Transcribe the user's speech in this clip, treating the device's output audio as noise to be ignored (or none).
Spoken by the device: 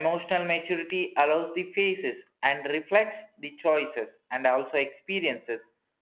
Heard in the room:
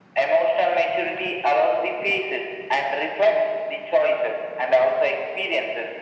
none